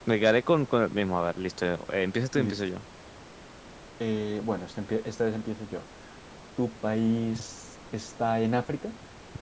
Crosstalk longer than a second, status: none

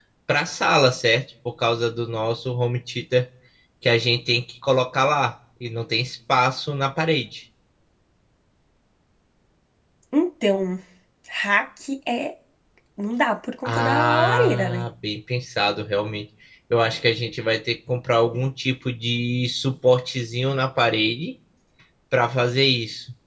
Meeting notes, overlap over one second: present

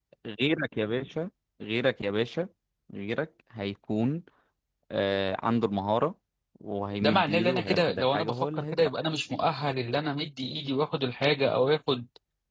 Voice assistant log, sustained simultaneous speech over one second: present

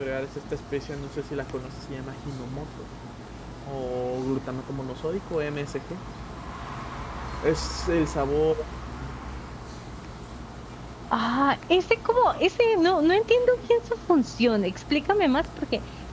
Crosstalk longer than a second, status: none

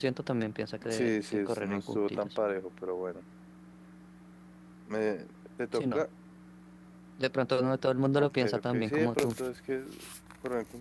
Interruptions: present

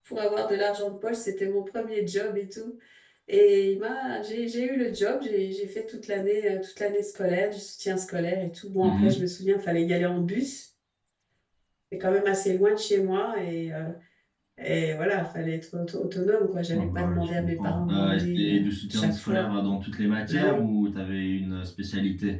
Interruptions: present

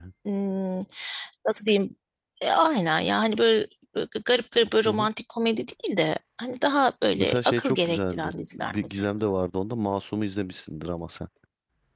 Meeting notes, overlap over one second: present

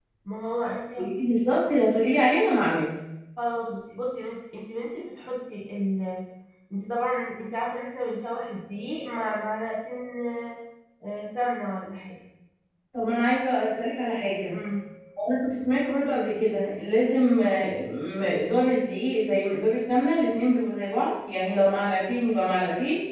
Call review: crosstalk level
none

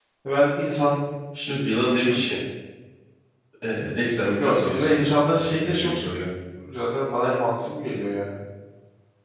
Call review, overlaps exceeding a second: present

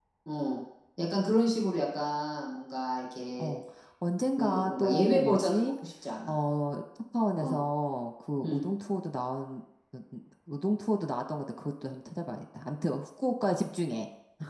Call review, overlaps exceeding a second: present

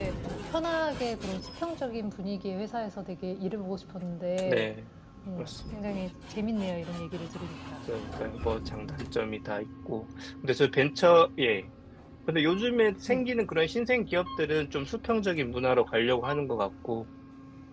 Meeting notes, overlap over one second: none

